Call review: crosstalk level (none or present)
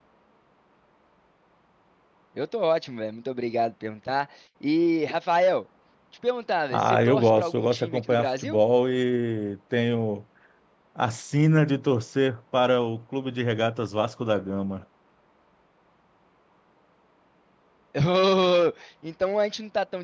present